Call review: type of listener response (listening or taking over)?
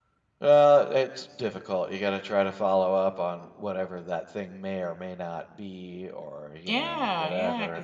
taking over